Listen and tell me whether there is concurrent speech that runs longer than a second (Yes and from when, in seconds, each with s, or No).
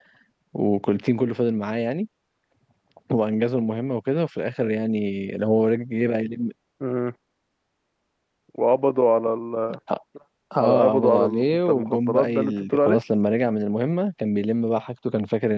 Yes, from 10.6 s